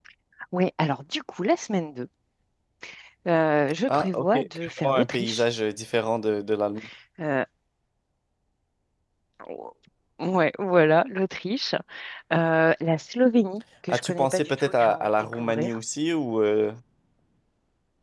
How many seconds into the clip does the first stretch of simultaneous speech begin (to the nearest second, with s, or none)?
4 s